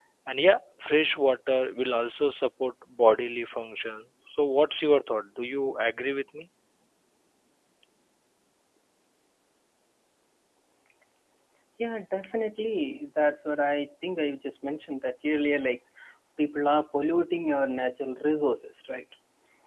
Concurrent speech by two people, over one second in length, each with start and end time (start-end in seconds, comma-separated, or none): none